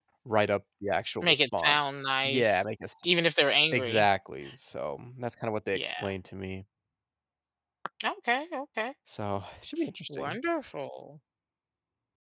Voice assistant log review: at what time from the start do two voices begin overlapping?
1.2 s

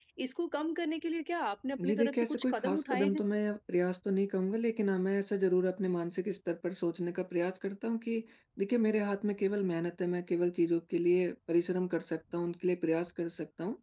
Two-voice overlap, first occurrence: 1.8 s

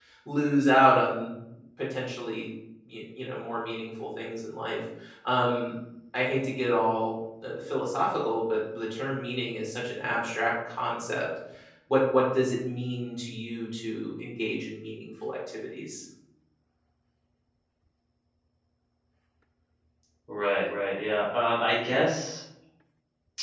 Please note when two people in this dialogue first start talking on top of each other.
none

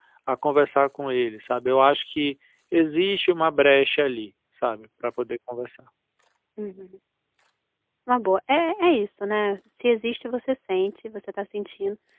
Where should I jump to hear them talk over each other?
none

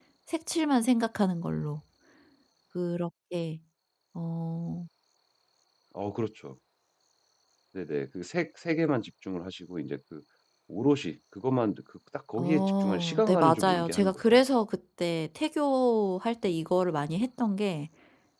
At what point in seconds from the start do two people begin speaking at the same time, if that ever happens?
12.3 s

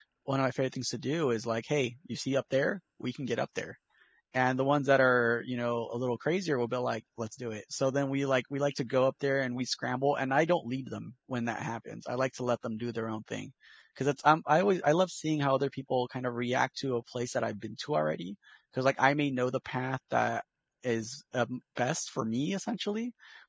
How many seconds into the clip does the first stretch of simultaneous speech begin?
none

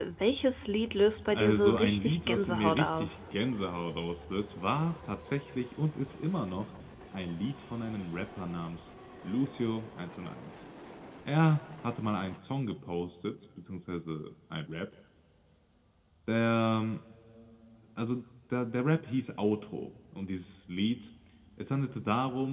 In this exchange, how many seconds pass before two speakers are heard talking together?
1.3 s

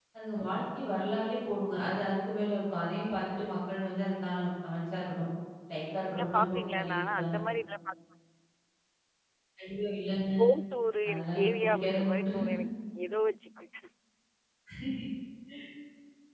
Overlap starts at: 6.0 s

